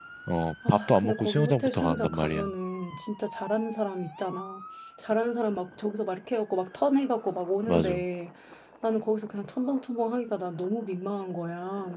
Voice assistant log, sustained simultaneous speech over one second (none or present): present